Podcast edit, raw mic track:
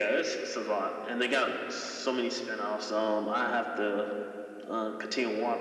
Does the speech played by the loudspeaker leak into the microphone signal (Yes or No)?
Yes